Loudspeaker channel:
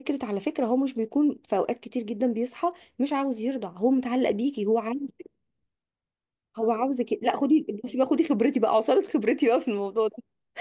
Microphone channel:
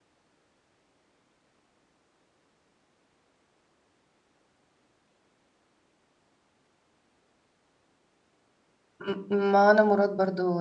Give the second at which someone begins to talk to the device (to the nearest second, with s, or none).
9 s